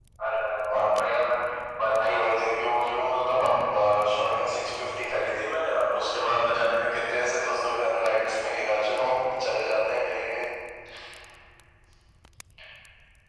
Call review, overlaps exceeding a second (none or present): none